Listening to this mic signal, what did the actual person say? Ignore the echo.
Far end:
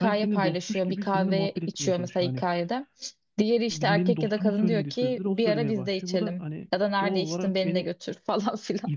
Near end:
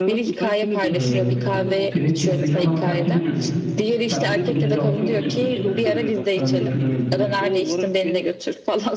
Ee, seni Instagram'dan takip ediyor diyelim. İşte sen gittiğin yeri at- atıyorsun işte. Örnek veriyorum.

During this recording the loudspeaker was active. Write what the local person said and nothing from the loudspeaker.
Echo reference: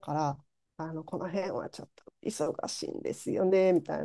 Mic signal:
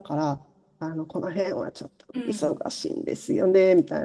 うん。

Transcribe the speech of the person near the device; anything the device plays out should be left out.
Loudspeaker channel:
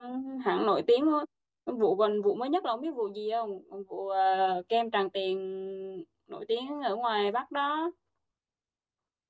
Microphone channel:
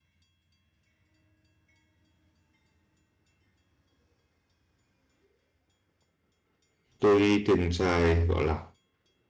tôi thường xài gọi là

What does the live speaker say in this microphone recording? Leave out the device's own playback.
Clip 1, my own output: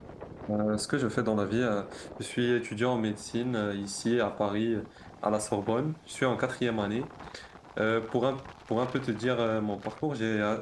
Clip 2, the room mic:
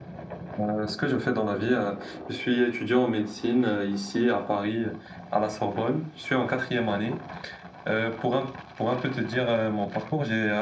none

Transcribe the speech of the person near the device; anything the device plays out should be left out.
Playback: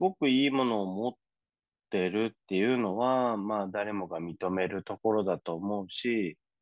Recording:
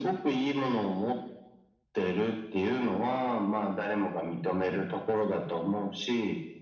none

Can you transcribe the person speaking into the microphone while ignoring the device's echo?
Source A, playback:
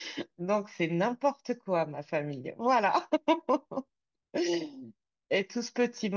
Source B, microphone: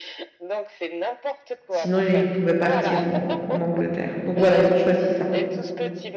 Sinon, ils pouvaient partir en, en Angleterre. Donc voilà, ils ont choisi ça.

